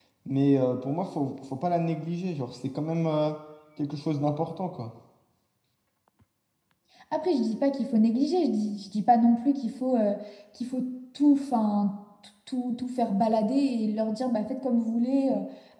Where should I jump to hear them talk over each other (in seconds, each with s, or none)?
none